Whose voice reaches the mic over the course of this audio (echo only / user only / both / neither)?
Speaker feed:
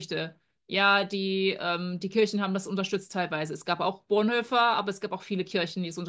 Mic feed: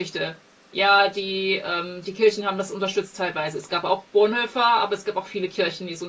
echo only